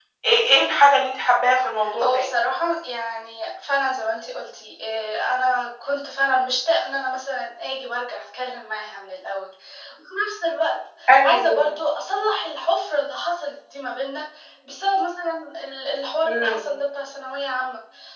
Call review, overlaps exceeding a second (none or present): none